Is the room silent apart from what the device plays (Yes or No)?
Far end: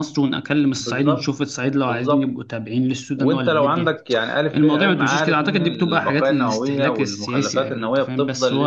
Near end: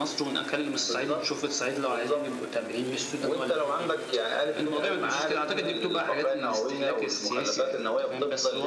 Yes